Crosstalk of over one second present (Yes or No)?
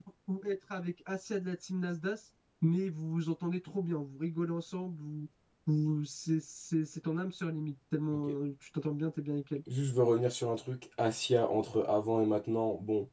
No